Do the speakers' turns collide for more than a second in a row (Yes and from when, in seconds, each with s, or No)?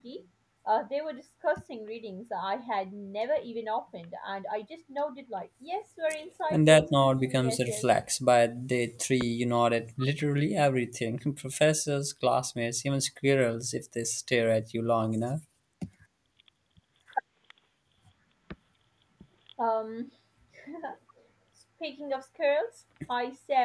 Yes, from 6.5 s